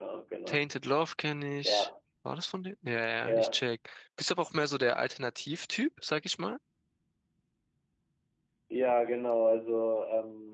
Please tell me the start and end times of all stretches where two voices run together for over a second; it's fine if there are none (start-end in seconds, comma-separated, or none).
none